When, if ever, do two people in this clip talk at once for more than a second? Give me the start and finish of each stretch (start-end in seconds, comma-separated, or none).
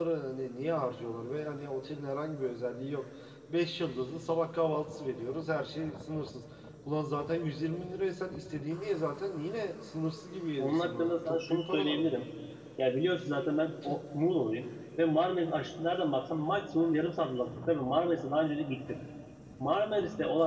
10.6-12.2